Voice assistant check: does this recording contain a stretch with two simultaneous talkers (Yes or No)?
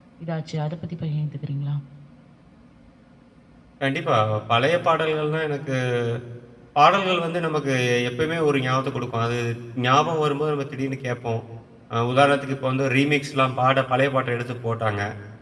No